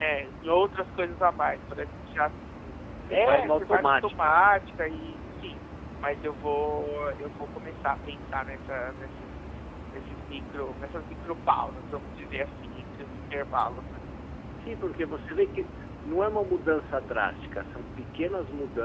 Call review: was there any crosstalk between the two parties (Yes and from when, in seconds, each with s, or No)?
Yes, from 3.1 s